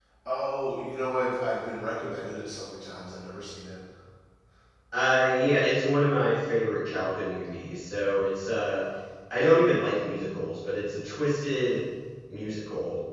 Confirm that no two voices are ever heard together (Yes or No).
Yes